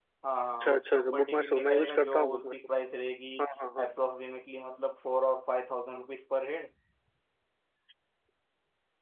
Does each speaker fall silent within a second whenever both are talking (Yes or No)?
No